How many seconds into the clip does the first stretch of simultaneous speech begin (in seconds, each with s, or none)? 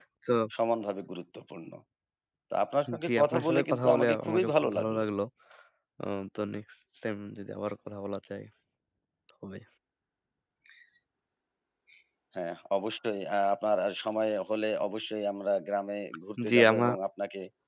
3.0 s